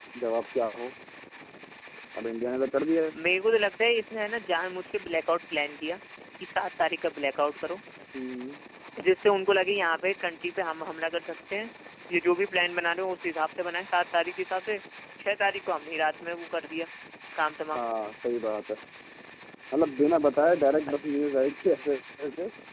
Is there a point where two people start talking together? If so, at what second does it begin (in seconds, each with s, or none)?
none